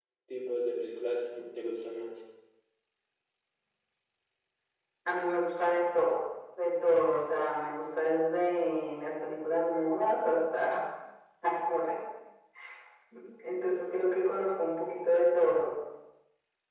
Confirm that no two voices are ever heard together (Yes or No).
Yes